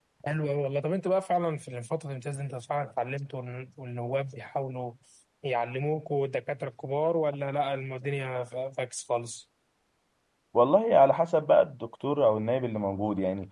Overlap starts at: none

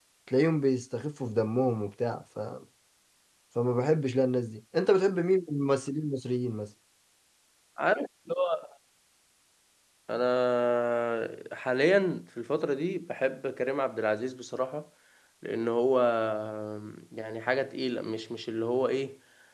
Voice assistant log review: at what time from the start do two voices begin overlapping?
none

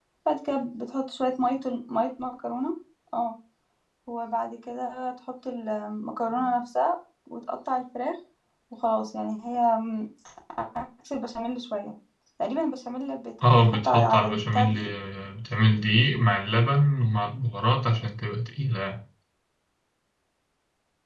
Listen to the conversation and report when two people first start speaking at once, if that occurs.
13.4 s

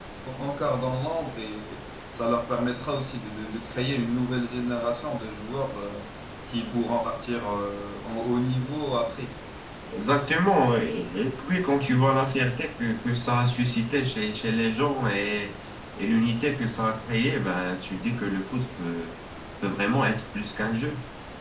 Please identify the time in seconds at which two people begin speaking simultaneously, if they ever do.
none

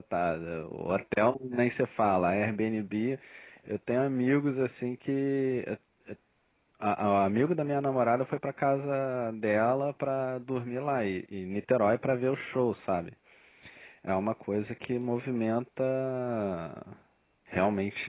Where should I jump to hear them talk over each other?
none

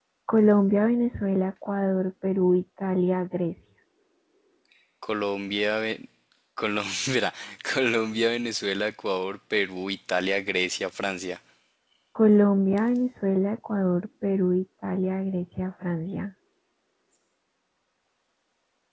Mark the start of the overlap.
none

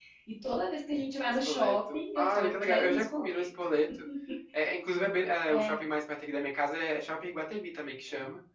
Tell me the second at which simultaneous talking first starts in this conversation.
1.3 s

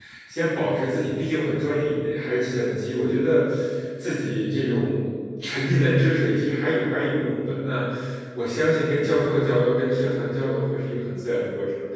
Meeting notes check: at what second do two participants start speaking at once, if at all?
none

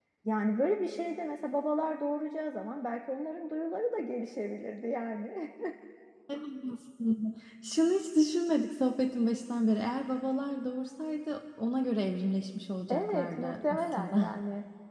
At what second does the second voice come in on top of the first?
12.9 s

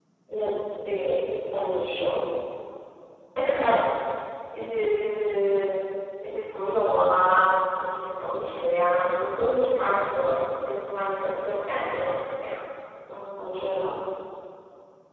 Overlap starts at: none

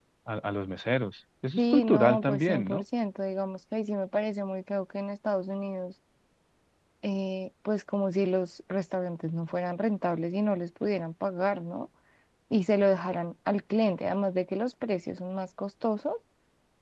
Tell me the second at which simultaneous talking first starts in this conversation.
1.6 s

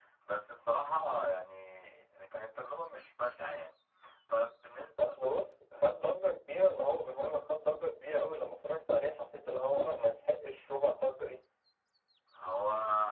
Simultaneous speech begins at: none

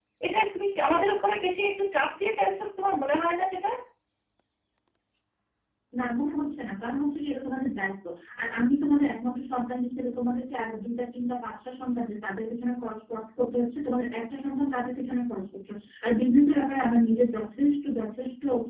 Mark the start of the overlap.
none

